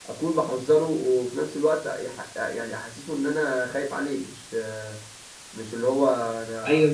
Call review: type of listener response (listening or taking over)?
taking over